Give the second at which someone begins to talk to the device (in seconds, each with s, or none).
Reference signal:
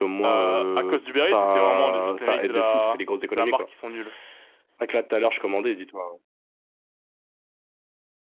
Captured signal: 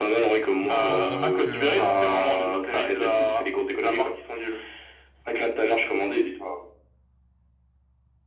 0.6 s